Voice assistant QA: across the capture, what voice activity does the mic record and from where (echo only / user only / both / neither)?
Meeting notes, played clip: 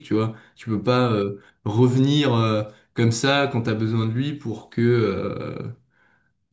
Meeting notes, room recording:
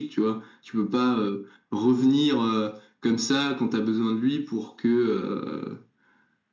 echo only